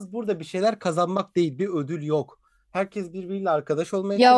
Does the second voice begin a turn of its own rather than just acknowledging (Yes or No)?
Yes